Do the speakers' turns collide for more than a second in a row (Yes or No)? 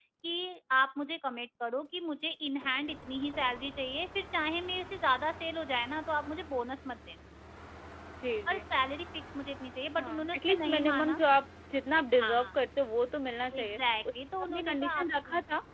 Yes